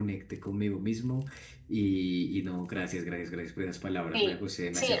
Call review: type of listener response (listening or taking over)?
taking over